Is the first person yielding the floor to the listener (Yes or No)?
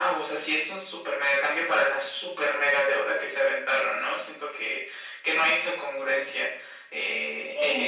Yes